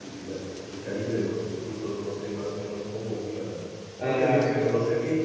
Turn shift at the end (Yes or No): No